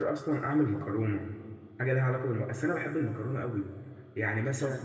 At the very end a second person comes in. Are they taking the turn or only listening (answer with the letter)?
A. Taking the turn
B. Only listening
B